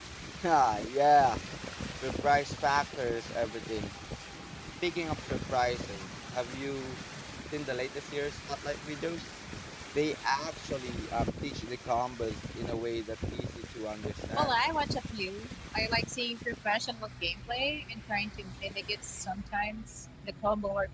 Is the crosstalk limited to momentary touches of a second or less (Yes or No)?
Yes